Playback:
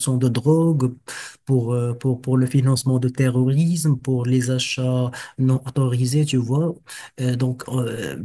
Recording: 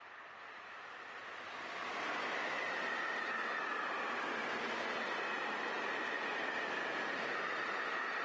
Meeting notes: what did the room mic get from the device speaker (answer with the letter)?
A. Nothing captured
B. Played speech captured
A